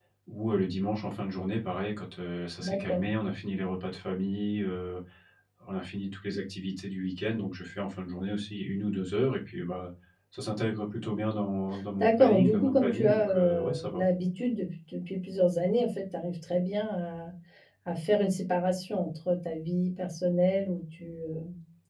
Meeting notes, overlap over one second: present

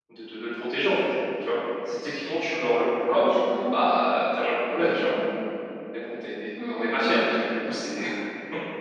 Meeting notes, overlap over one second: present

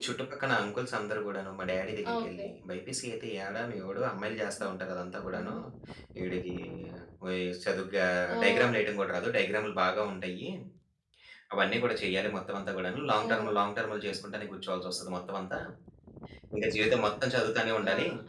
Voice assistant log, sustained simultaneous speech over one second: none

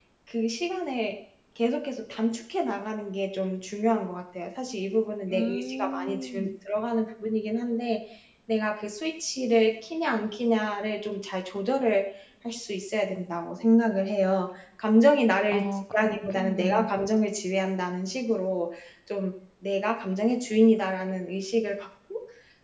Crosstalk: present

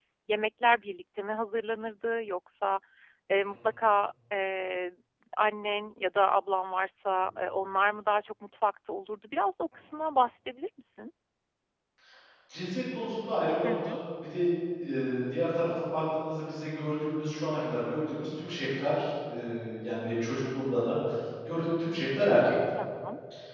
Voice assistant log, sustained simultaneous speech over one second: none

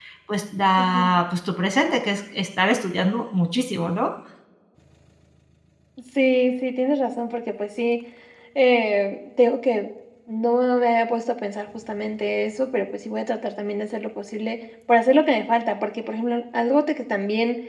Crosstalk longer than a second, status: none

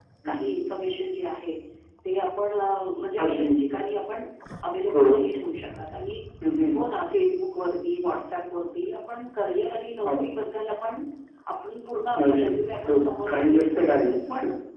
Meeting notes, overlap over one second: present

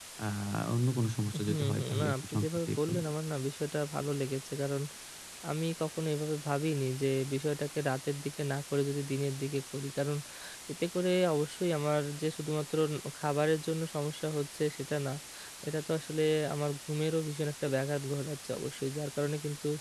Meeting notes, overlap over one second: present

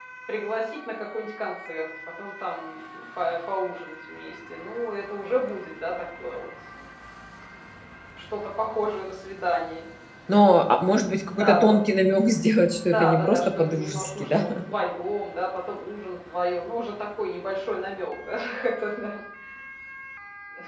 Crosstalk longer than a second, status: present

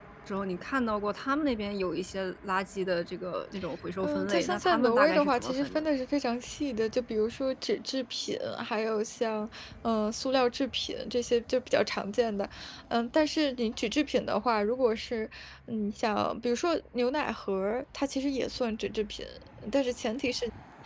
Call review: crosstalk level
present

